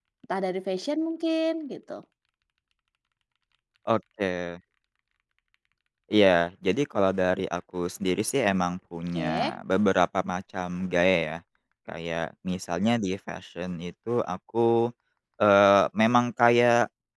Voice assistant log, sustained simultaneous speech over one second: none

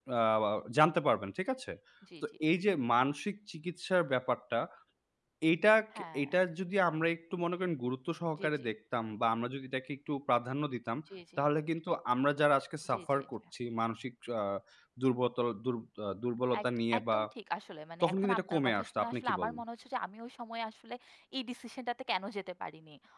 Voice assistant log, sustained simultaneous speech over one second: present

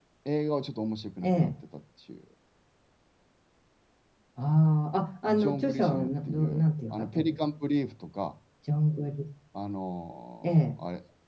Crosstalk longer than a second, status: present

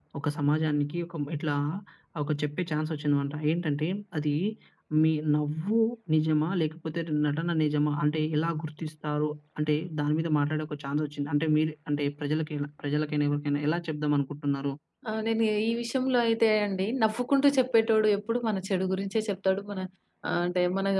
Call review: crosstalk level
none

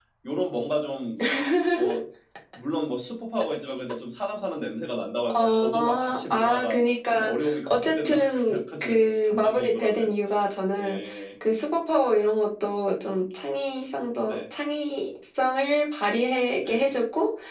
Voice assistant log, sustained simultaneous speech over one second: present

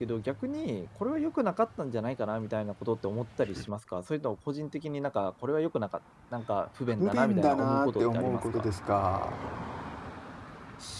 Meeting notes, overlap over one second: present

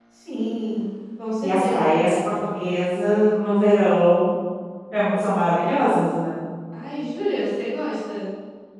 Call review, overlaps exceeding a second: none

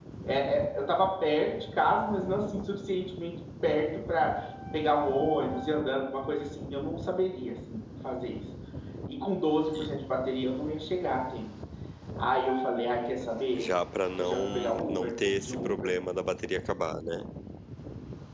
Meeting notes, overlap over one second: present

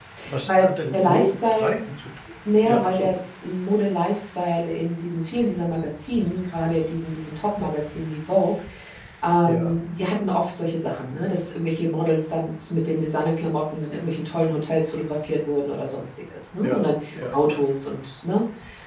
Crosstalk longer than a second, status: present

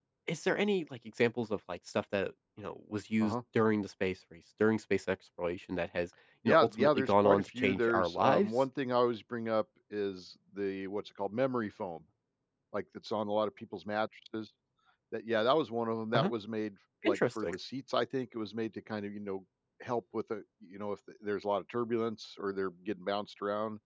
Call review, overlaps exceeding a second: present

